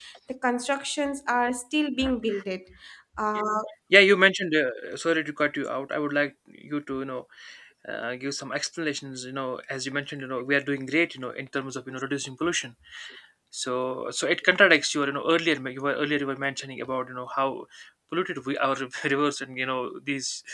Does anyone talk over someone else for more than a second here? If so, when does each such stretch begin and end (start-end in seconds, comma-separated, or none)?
none